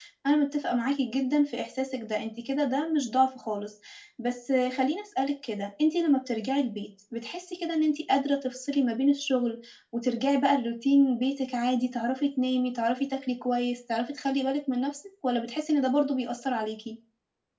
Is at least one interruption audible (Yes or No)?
No